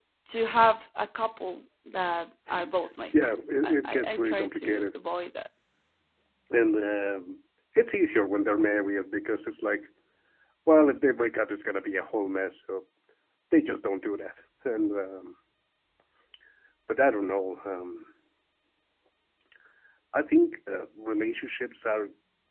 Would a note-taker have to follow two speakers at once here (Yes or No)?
Yes